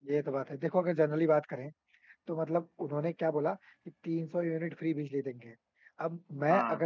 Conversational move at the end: listening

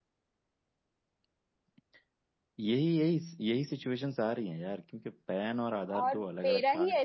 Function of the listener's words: taking over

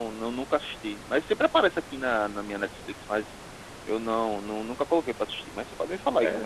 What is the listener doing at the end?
taking over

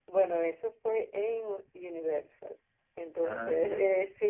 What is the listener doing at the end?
listening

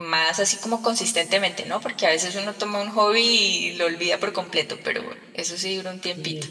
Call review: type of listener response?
taking over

